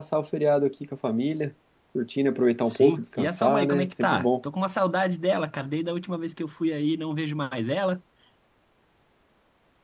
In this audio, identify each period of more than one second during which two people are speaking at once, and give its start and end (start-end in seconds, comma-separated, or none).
2.6-4.3